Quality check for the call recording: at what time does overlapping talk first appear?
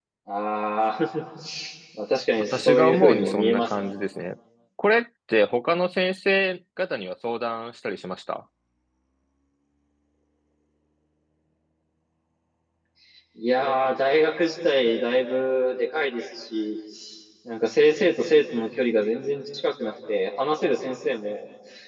2.4 s

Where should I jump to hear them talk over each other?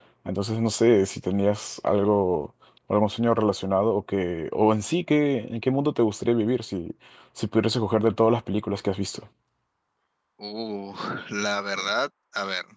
none

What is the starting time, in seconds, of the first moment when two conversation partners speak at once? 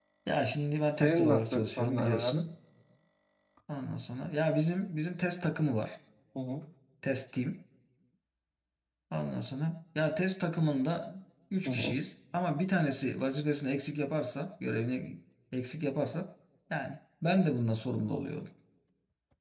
1.0 s

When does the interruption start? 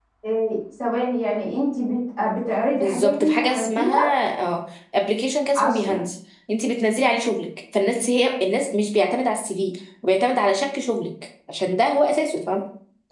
2.7 s

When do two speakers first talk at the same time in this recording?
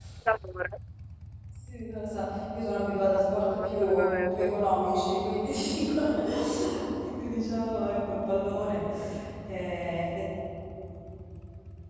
3.1 s

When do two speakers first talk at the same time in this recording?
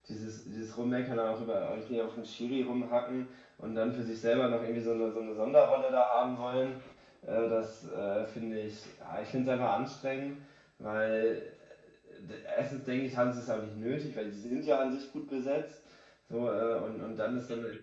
none

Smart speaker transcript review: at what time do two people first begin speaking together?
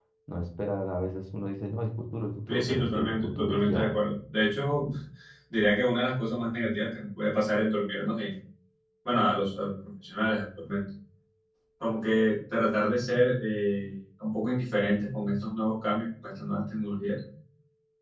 2.5 s

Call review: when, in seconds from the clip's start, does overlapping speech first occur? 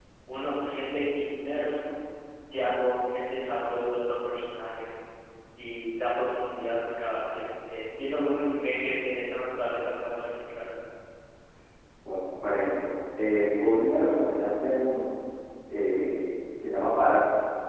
none

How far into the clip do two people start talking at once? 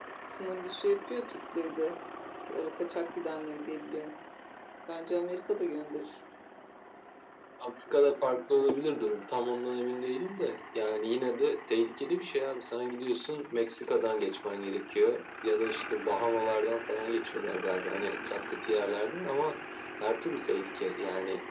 none

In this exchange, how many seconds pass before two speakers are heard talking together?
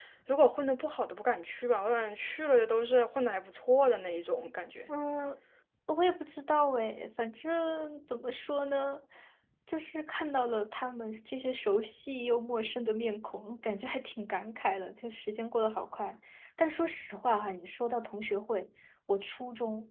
none

